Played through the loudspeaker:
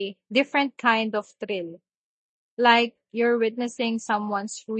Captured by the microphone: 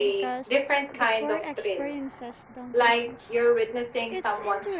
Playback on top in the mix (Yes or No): Yes